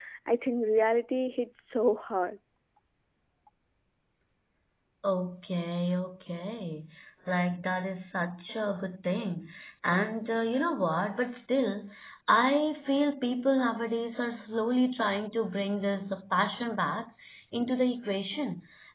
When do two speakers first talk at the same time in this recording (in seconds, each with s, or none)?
none